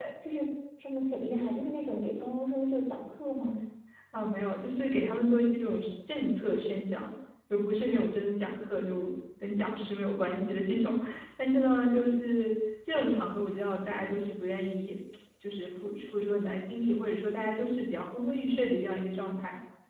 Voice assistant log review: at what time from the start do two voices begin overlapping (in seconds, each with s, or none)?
none